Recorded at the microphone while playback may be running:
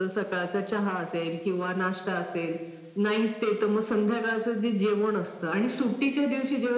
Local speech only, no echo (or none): none